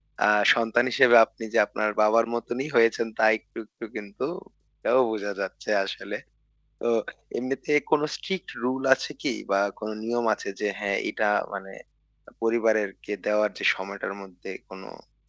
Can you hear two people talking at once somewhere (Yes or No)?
No